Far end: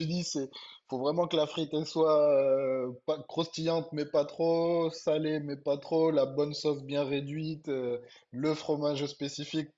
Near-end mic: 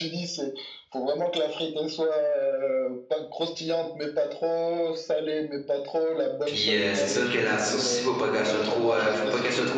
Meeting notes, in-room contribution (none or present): present